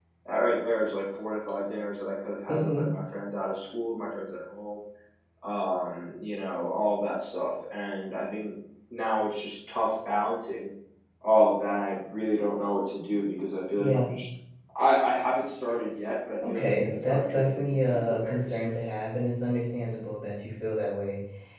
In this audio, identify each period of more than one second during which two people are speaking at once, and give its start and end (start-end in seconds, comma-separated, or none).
16.5-18.8